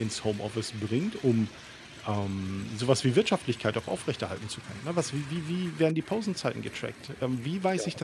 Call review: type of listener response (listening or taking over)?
listening